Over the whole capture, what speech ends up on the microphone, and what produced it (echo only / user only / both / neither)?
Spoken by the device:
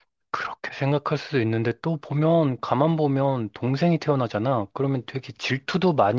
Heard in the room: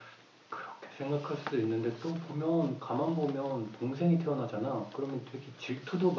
echo only